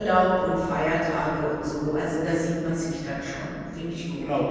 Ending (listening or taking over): taking over